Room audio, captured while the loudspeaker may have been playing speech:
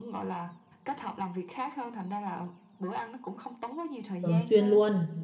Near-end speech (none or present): present